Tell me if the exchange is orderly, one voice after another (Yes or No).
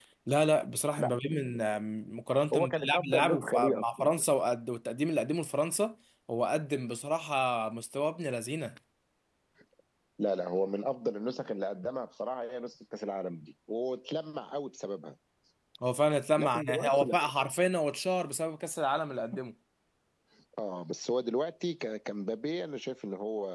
No